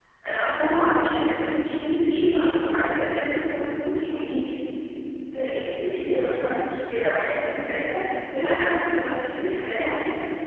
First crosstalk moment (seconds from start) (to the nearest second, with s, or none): none